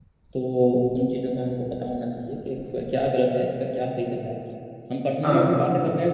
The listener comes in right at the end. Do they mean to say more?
No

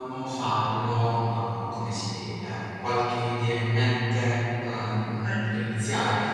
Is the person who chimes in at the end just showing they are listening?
Yes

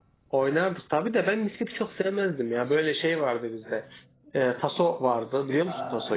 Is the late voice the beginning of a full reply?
Yes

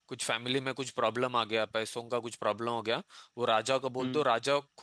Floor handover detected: No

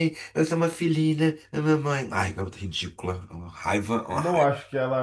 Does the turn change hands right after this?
Yes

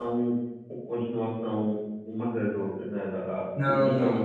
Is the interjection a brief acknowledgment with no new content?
Yes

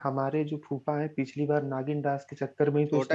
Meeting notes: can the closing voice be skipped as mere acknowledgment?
No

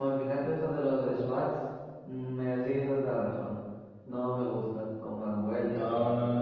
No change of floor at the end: No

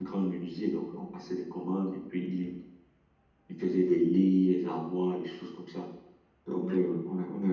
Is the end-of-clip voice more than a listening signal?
No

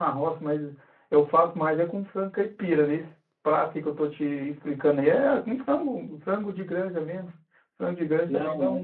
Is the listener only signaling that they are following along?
Yes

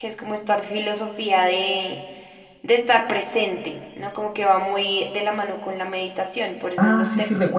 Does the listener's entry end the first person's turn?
Yes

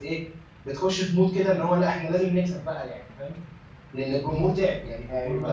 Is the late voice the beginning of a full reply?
No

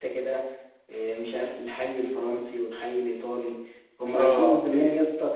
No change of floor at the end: Yes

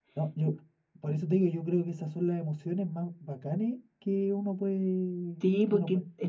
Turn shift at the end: Yes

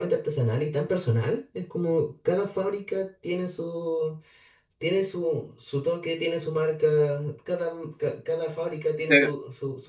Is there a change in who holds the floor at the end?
Yes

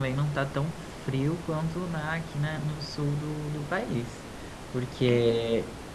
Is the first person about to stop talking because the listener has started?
No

